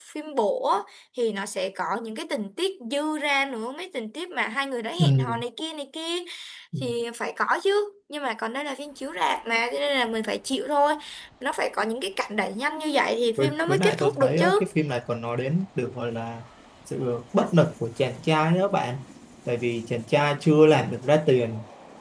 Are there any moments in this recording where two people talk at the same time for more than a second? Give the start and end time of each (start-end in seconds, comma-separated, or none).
13.4-14.7